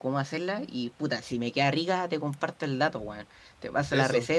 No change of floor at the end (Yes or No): Yes